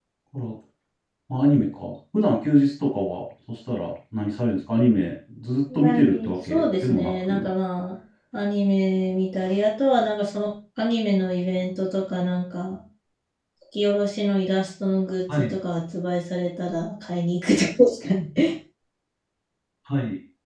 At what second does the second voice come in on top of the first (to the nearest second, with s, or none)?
6 s